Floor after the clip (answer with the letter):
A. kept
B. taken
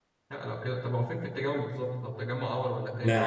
B